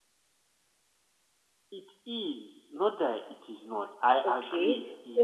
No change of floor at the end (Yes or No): No